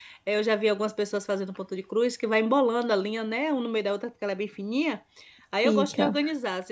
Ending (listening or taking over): listening